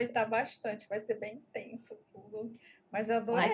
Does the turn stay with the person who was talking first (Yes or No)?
Yes